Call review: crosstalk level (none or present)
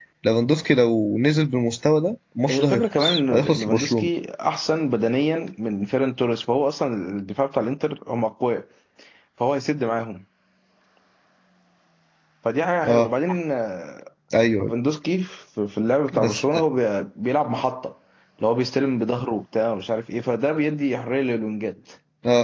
present